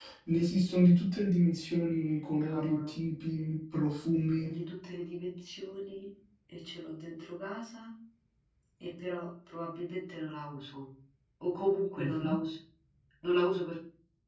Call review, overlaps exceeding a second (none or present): none